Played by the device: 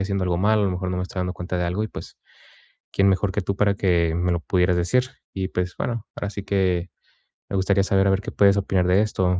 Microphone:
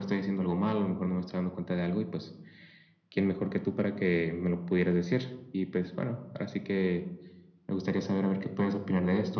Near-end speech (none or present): none